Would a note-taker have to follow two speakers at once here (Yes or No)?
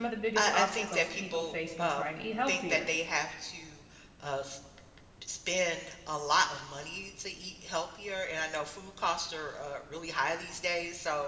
Yes